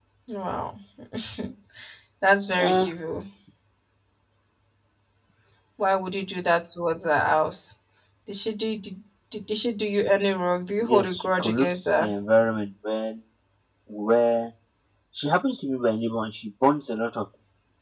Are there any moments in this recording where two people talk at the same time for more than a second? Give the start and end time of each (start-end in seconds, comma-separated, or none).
10.8-12.1